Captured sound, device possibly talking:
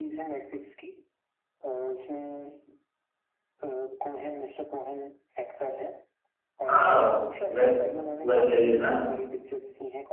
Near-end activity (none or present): present